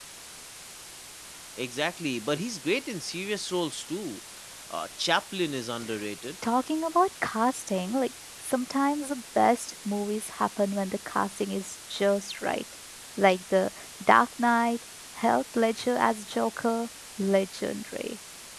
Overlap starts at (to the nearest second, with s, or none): none